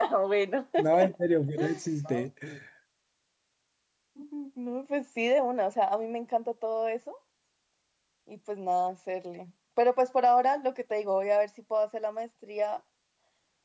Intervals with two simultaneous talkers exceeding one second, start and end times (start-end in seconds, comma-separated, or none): none